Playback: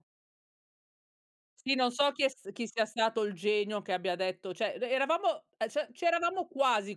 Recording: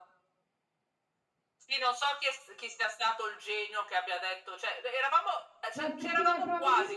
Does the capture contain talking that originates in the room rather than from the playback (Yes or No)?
Yes